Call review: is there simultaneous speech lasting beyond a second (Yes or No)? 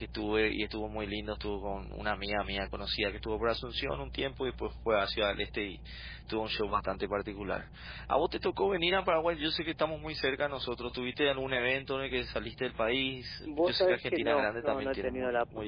Yes